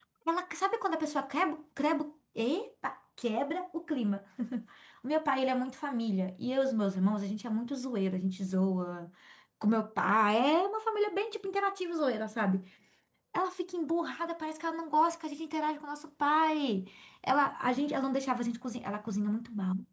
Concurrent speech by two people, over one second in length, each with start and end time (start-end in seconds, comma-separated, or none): none